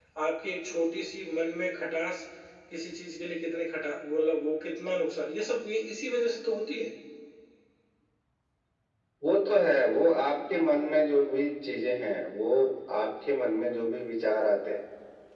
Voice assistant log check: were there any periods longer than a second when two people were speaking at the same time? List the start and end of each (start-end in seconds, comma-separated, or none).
none